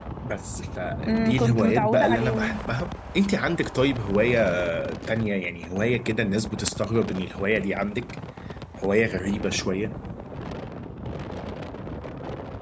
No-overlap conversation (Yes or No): No